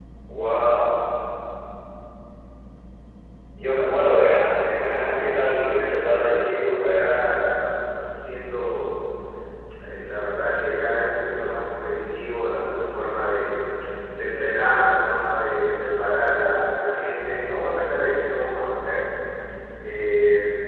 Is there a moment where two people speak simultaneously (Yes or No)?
Yes